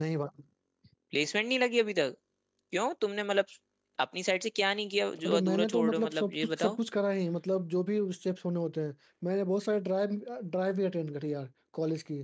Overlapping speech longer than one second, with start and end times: 5.2-6.8

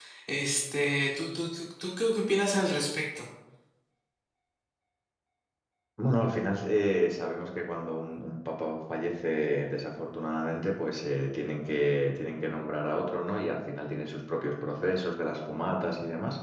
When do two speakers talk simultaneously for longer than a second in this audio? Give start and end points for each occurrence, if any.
none

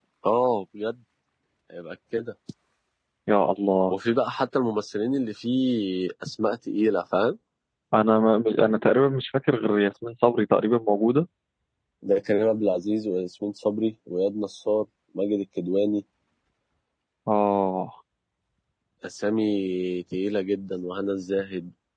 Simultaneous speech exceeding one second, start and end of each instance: none

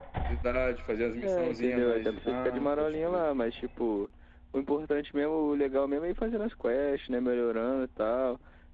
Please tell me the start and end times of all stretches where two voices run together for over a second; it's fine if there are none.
1.2-3.2

